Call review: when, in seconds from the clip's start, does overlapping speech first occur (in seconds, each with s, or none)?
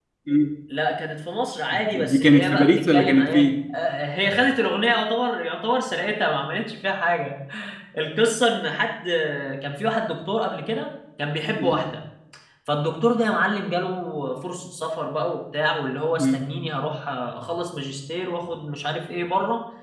1.7 s